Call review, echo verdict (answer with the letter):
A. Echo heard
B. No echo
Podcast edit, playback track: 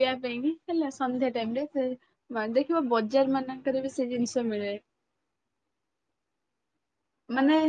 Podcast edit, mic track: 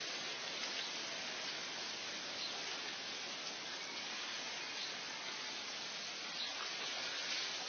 B